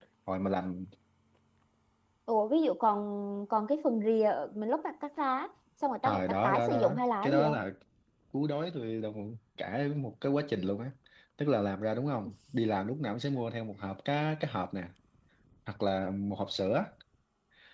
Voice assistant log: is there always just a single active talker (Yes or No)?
No